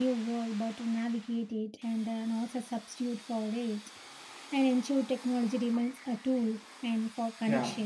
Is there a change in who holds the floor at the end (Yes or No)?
Yes